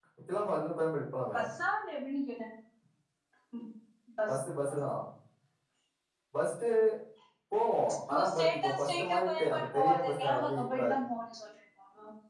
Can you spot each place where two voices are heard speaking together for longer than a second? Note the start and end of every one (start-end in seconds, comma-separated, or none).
8.1-10.9